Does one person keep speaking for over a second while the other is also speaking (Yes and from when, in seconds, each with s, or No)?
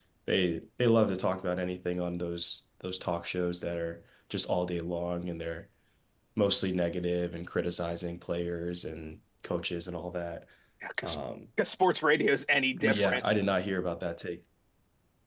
No